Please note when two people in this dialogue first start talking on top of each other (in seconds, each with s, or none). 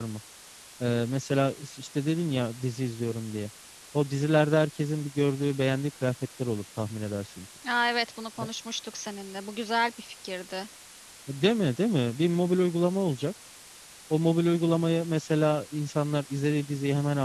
none